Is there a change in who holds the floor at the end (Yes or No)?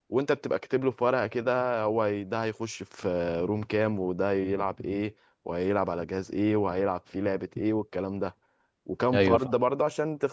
No